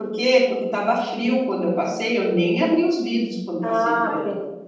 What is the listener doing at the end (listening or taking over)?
taking over